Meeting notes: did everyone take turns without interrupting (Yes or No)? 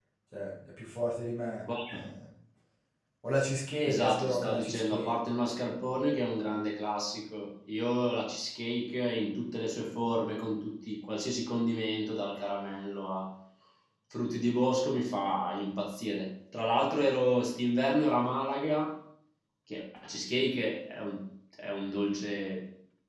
No